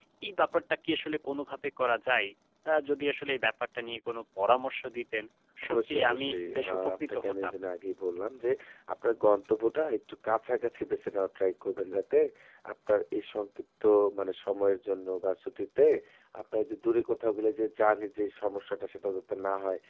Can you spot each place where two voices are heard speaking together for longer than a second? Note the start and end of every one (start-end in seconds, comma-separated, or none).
5.7-7.5